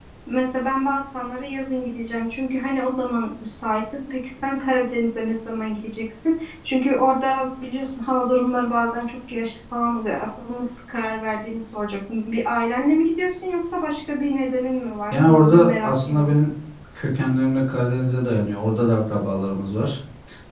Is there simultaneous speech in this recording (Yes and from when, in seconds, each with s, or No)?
Yes, from 15.1 s